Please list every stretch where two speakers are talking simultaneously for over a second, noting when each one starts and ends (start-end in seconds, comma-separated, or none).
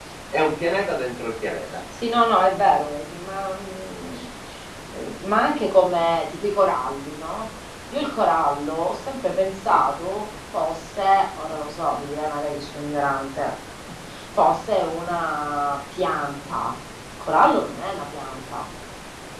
none